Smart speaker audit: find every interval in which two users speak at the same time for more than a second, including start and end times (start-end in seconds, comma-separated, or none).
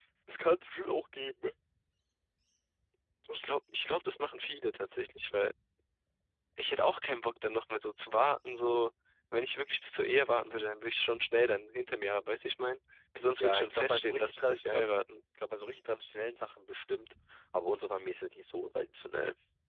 13.4-14.8